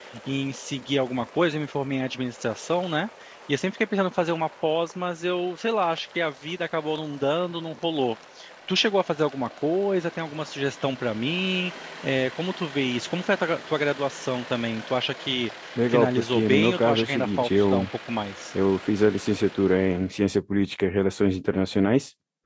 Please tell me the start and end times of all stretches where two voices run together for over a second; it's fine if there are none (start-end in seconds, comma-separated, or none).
15.9-17.9